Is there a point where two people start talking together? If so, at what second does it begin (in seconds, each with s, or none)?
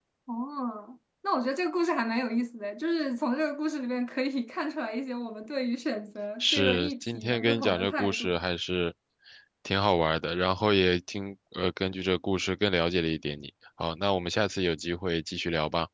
6.4 s